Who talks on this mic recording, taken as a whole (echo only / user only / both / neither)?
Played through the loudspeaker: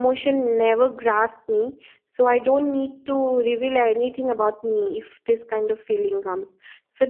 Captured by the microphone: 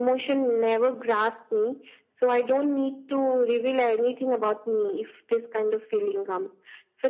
echo only